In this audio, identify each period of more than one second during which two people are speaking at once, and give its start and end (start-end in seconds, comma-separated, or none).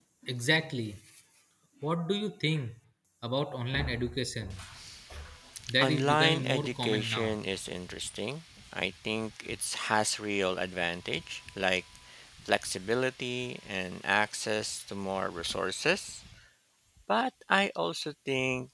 5.8-7.4